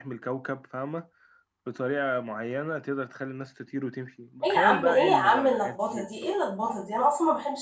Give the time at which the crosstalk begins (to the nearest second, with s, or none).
4 s